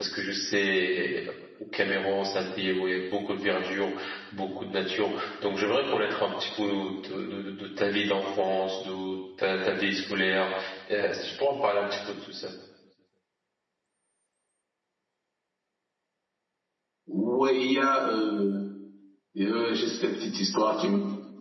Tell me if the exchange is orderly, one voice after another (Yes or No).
Yes